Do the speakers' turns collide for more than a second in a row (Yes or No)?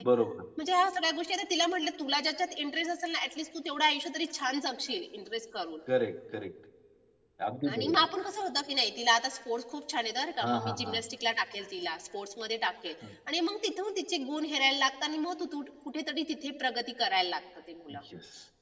No